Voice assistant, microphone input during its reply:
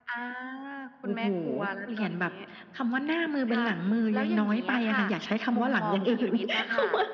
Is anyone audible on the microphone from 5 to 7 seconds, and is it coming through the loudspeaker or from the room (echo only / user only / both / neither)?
echo only